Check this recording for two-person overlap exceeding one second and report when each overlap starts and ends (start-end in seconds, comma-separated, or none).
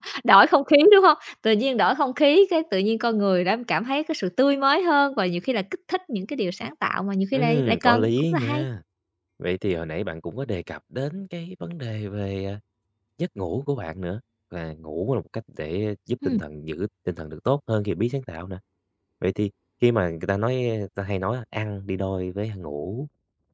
7.3-8.6